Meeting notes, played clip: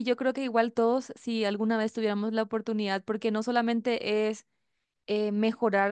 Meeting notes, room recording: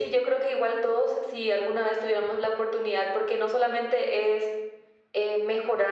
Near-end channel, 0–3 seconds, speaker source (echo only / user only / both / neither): echo only